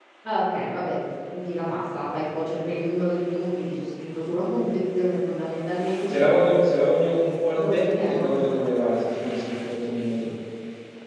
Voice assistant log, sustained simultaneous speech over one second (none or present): present